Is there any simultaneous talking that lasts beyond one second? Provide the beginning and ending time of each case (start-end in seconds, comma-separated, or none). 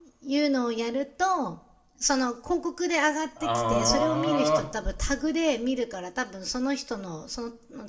3.4-4.7